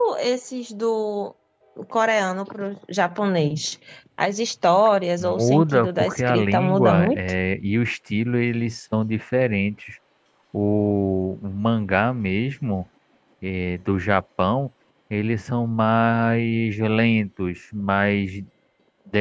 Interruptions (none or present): present